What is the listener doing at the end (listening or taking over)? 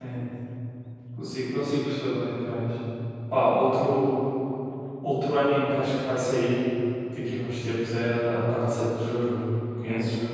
taking over